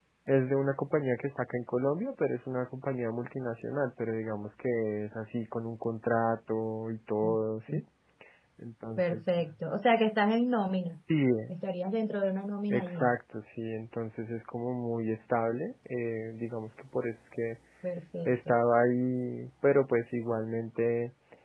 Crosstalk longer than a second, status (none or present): none